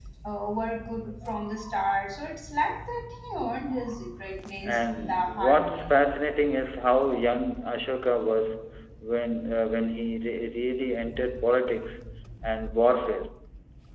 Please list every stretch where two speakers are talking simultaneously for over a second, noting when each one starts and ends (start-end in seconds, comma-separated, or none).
4.6-5.9